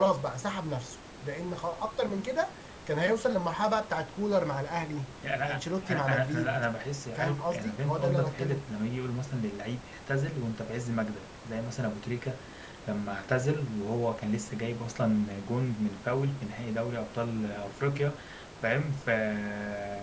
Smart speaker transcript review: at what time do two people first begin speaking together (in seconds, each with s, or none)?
5.4 s